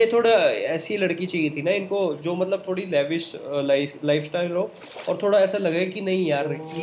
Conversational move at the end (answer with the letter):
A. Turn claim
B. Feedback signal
A